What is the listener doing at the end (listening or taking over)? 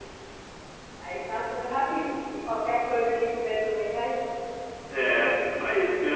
taking over